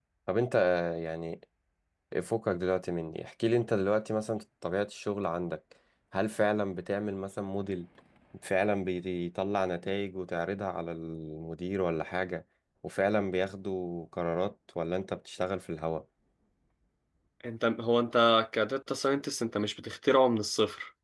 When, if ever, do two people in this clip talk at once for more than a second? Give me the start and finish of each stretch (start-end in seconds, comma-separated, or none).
none